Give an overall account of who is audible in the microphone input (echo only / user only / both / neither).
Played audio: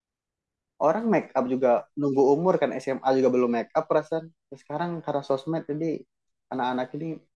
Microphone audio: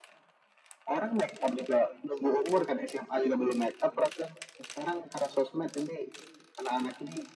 echo only